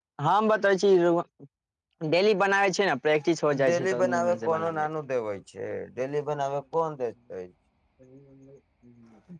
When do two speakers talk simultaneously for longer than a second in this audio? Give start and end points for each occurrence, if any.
3.6-4.9

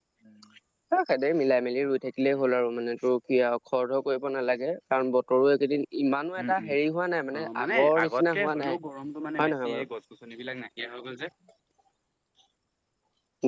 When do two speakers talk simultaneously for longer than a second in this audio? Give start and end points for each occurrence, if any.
7.4-8.8

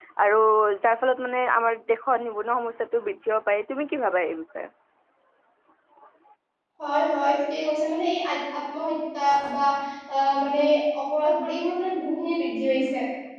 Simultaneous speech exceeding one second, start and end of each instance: none

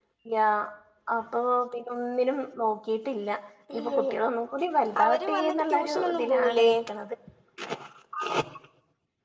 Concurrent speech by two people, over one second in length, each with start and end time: 5.0-6.7

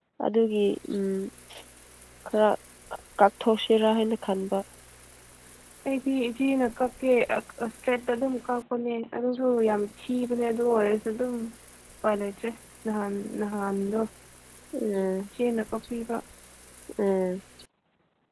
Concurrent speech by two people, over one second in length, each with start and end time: none

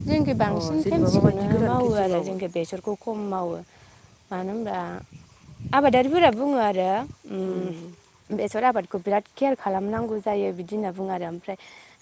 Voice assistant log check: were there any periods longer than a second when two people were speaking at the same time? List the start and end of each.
0.6-2.4

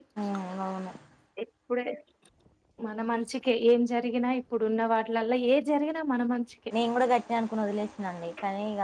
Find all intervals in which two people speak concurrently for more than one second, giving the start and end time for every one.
none

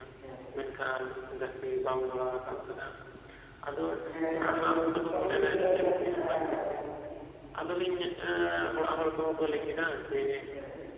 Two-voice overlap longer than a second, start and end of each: 5.1-6.8

